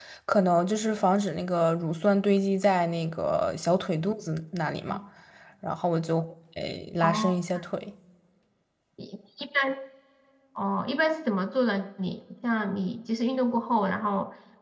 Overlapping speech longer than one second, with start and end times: none

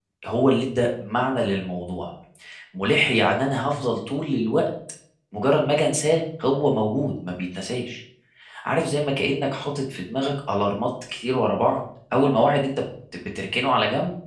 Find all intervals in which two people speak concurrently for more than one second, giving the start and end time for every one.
none

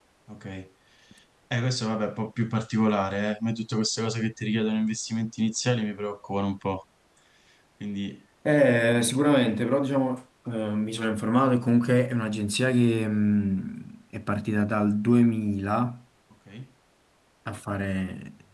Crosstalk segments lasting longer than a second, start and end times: none

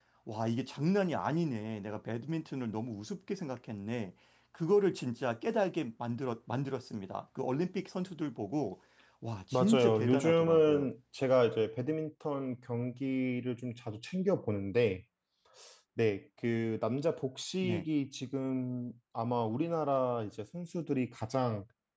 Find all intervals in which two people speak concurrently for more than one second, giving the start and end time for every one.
9.5-10.9

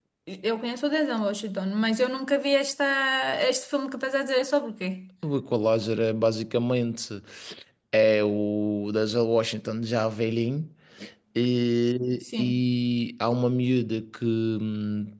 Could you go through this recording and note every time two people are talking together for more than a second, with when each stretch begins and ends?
none

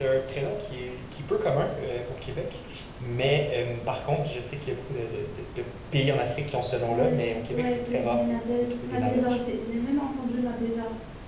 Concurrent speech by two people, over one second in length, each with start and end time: 6.8-9.4

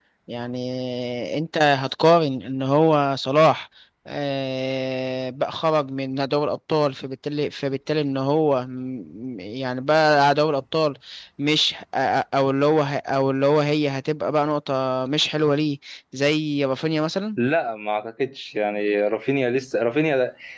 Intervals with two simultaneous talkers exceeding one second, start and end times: none

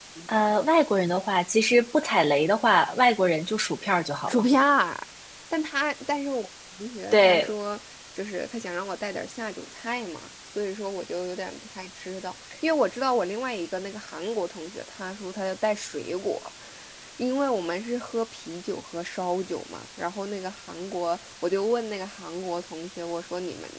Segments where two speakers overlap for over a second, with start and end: none

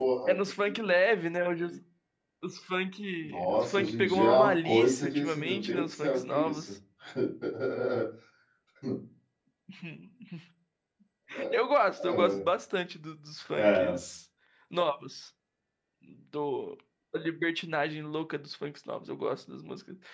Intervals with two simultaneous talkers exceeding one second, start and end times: 3.2-6.7

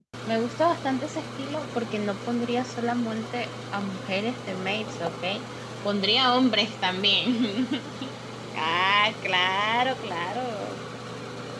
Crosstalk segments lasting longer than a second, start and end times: none

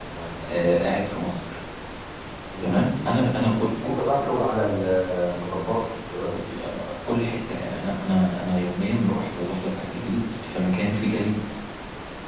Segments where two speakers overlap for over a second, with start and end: none

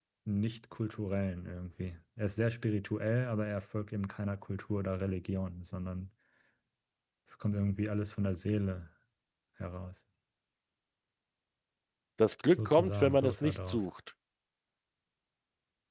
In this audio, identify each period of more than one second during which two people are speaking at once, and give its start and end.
12.5-13.8

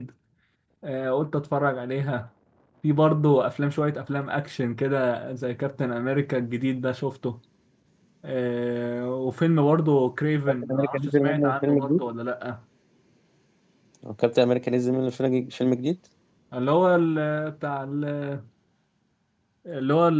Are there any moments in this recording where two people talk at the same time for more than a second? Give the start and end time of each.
10.6-12.0

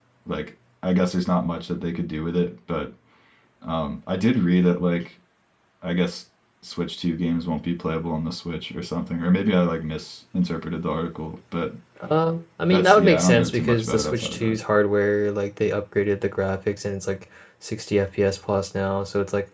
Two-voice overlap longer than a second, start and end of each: 12.7-14.6

